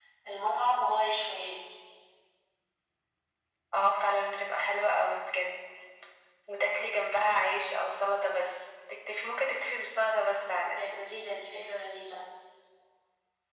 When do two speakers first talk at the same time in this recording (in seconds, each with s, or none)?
none